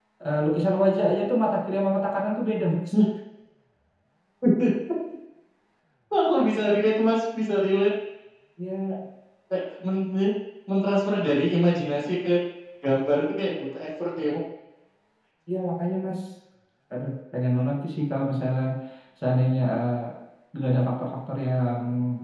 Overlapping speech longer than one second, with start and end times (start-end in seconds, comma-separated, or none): none